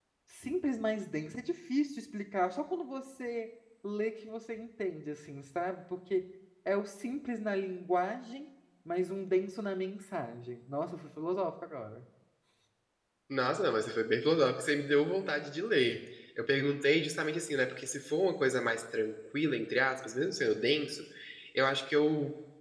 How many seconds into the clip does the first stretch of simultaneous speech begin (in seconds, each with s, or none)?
none